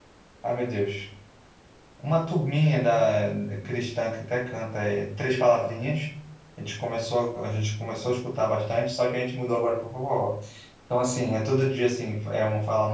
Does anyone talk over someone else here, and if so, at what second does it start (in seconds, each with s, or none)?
none